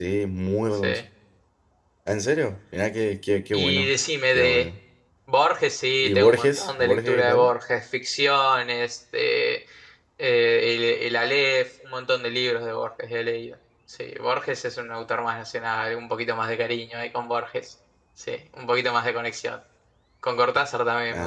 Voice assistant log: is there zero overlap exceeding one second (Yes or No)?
No